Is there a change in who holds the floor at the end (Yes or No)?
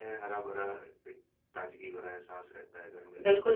Yes